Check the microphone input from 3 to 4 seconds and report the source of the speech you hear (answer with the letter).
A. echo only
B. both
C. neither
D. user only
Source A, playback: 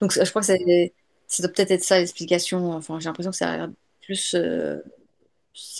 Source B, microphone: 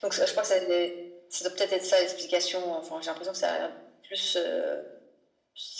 A